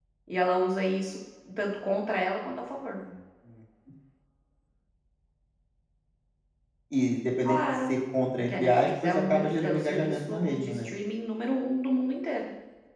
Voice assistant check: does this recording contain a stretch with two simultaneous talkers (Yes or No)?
Yes